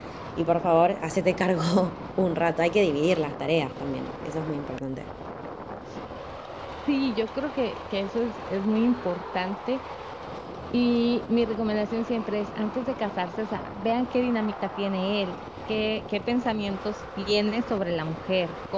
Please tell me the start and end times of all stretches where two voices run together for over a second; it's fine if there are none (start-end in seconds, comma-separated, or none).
none